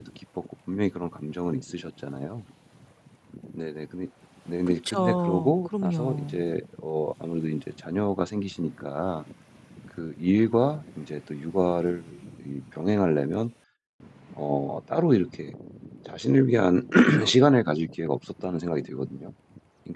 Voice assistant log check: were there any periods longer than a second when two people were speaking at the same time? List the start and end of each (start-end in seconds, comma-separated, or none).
4.7-6.3